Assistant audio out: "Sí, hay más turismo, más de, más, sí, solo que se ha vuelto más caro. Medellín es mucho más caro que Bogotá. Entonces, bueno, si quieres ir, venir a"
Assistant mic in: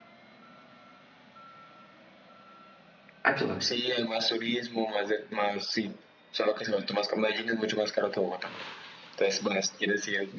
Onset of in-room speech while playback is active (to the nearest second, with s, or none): 3 s